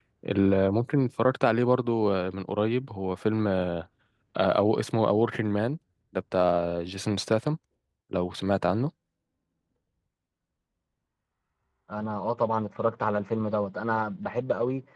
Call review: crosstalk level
none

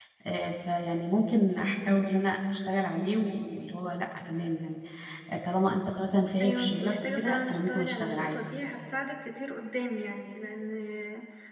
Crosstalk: present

